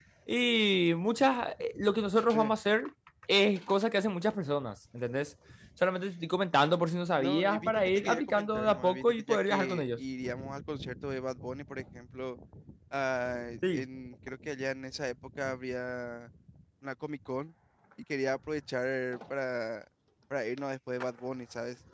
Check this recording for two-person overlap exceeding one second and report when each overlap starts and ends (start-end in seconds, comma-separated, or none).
7.2-10.0